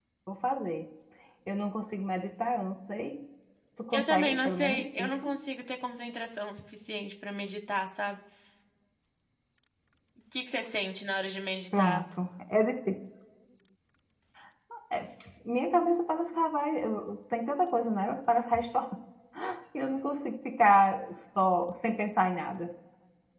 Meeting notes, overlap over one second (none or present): present